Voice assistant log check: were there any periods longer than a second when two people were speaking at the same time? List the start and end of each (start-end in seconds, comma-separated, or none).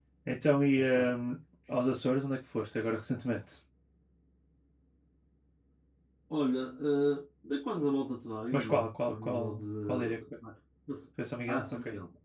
8.5-10.2